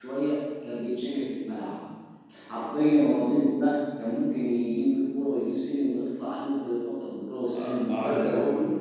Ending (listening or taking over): taking over